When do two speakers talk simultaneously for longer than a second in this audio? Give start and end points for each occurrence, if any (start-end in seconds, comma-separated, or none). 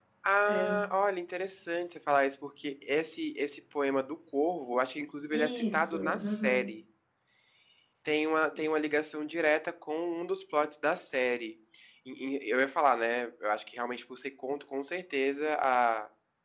5.3-6.6